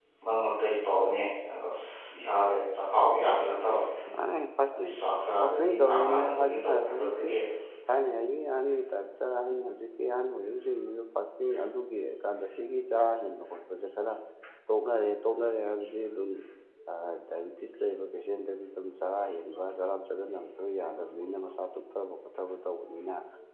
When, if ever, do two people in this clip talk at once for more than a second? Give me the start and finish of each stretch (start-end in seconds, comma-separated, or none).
5.4-7.3